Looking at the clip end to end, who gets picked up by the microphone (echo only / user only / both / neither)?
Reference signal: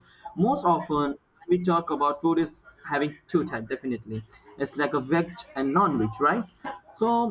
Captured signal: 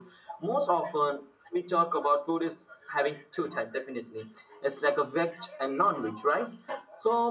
echo only